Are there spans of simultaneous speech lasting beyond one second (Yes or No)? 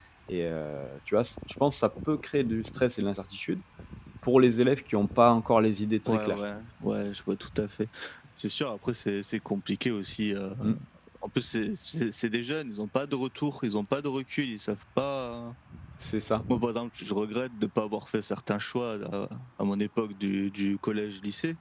No